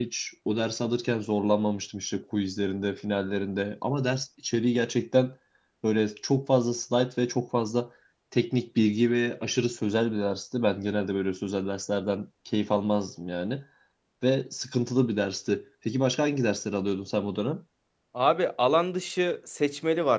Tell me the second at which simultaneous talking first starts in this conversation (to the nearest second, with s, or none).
none